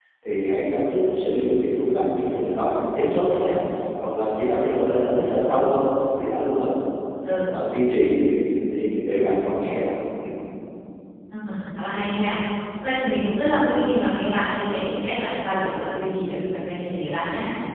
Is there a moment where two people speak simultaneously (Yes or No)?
No